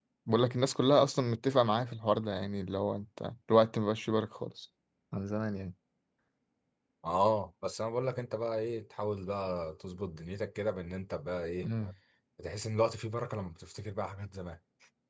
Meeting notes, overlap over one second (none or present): none